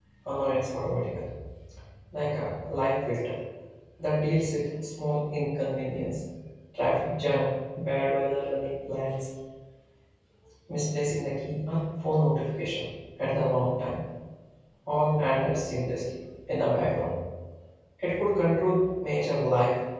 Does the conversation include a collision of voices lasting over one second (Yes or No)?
No